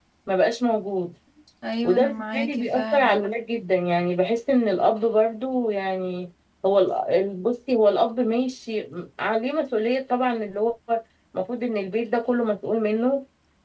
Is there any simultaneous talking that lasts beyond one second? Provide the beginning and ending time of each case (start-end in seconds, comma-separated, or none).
1.8-3.2